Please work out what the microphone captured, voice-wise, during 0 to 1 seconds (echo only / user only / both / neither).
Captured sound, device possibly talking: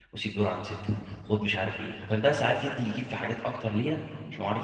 user only